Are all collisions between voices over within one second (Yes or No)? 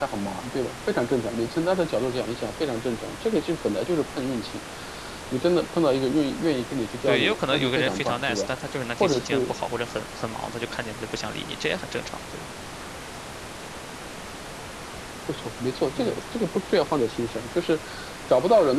No